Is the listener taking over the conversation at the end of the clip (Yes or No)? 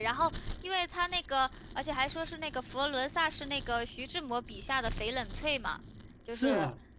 Yes